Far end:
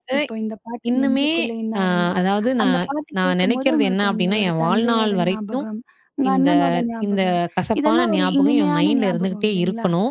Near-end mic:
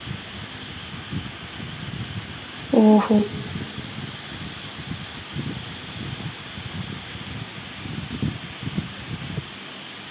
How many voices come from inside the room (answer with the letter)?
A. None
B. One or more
B